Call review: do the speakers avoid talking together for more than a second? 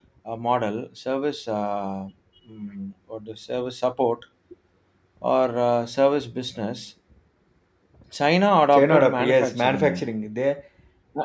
No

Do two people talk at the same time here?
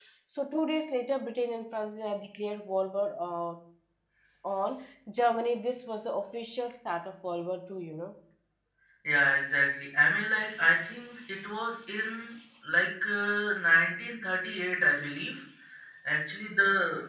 No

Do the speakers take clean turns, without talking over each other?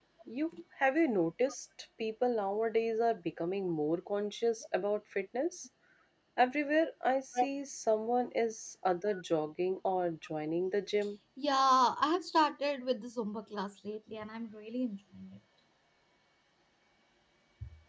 Yes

